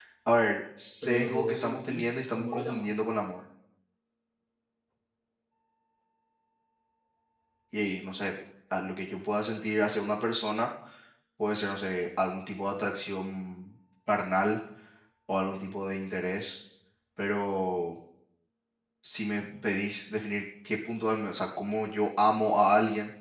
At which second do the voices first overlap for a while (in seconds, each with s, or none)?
1.0 s